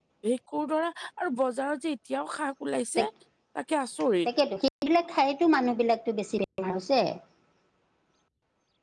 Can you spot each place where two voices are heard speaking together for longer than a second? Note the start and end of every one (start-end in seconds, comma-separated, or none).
none